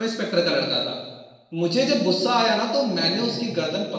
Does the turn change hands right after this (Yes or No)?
No